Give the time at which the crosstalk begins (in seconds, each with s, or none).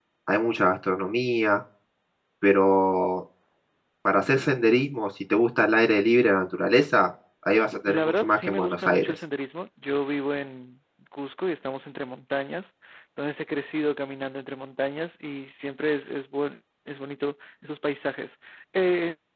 7.8 s